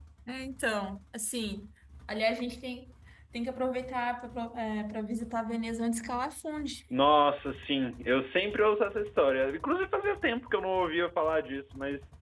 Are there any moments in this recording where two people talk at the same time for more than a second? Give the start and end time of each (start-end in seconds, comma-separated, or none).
none